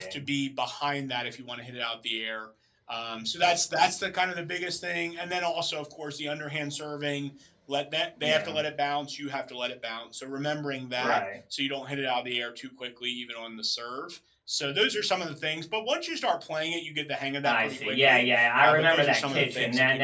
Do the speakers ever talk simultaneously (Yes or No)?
Yes